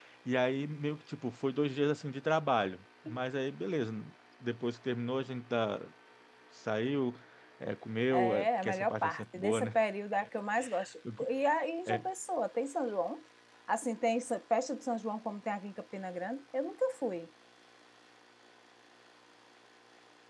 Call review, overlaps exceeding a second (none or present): present